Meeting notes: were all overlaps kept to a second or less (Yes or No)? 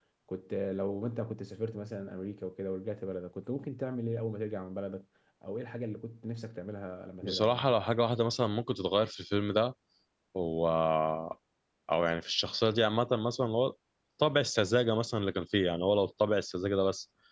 Yes